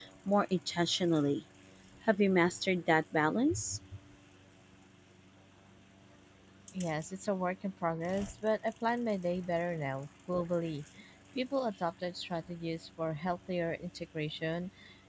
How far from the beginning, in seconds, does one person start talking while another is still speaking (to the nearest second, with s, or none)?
none